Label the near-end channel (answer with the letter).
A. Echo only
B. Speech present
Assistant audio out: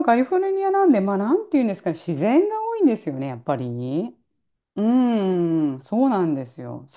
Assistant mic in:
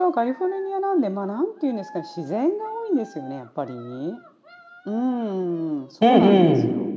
B